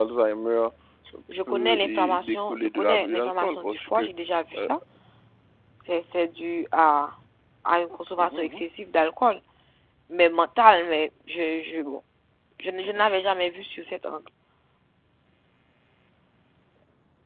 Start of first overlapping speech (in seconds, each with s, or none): 1.5 s